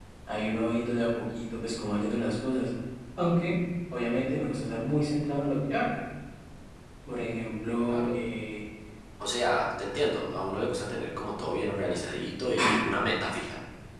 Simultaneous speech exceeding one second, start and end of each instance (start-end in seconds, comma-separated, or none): none